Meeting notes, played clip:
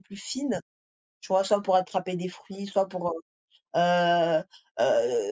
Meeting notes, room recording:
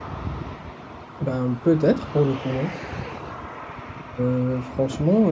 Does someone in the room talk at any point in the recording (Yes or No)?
Yes